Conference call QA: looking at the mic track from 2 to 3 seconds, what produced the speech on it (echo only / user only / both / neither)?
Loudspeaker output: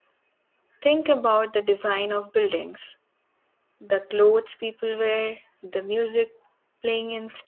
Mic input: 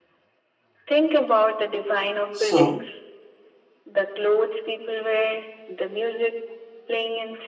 both